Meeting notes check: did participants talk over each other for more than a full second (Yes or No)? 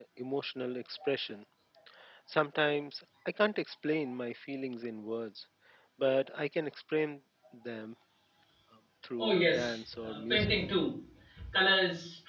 Yes